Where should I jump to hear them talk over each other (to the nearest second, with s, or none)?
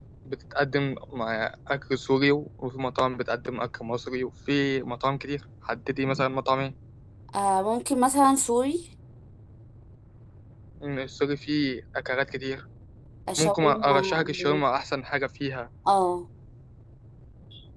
13 s